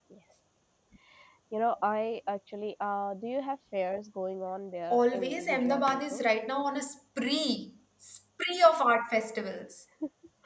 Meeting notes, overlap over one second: present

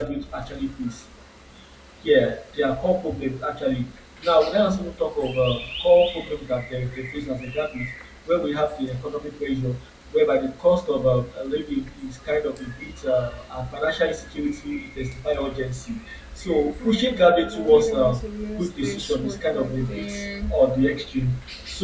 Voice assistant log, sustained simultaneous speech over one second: present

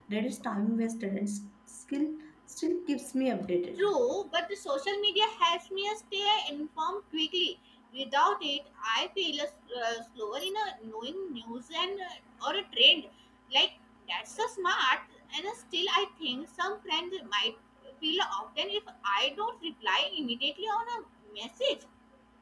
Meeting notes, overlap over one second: none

